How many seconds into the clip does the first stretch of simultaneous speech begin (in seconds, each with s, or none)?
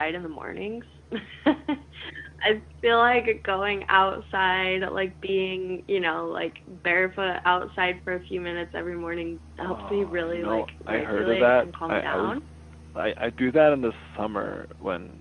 9.6 s